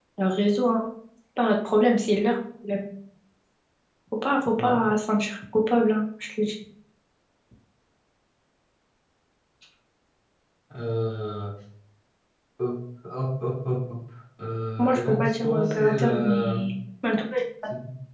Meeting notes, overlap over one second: present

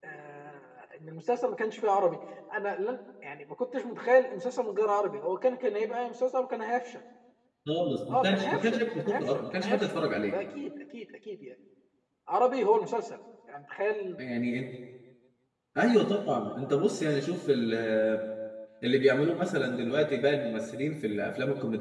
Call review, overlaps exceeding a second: present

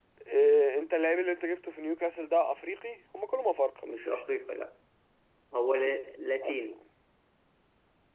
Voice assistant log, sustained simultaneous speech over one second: none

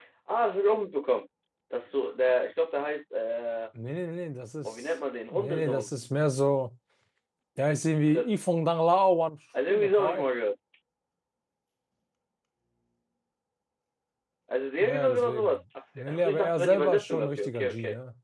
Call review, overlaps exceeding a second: present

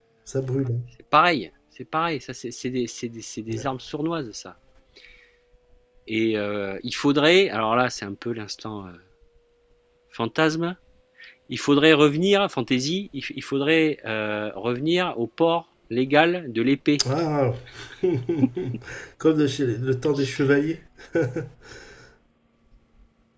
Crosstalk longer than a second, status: none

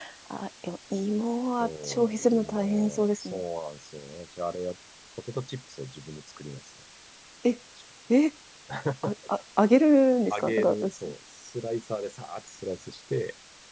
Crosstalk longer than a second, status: present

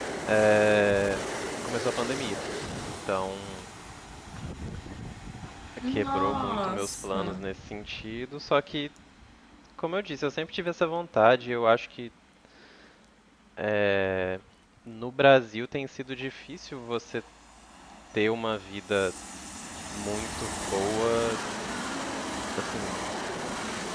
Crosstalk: present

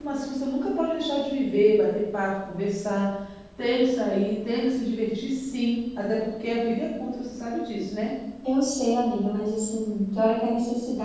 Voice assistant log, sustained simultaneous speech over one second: none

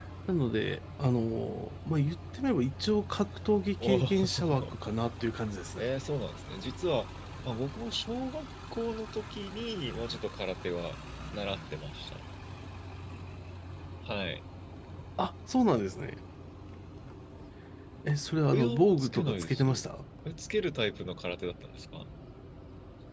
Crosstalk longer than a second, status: present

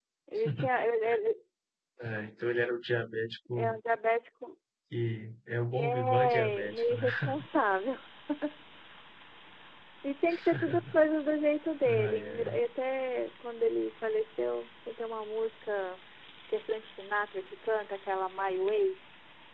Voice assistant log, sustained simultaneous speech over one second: present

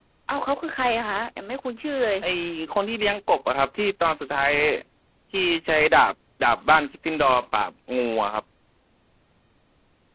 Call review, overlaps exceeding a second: none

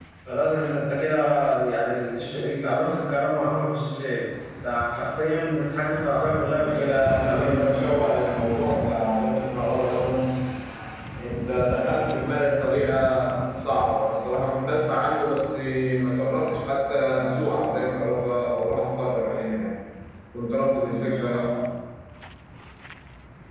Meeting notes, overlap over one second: present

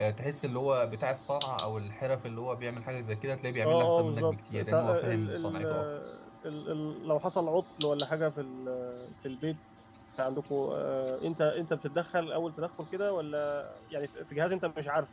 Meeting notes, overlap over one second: present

